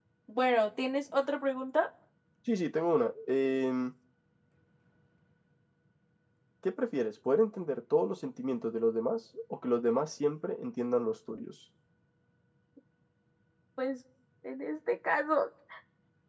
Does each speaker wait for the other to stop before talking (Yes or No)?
Yes